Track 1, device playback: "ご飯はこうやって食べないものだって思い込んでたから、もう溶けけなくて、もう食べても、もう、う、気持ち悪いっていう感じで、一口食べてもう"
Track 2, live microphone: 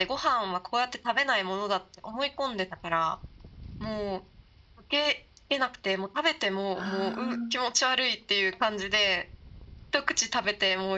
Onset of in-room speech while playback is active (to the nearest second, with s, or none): 7 s